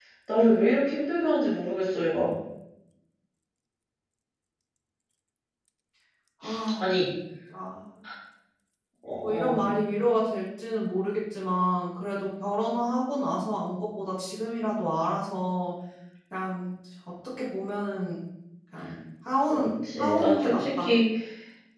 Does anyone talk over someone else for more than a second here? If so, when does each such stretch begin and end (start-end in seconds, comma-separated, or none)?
19.5-20.9